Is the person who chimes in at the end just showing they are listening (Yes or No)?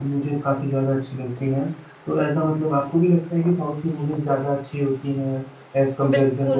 No